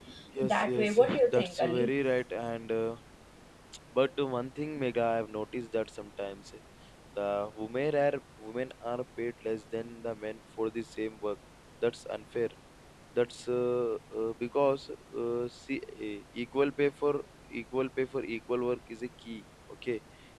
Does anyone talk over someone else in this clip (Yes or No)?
Yes